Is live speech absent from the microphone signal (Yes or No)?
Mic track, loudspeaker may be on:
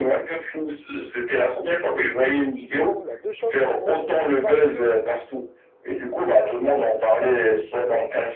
No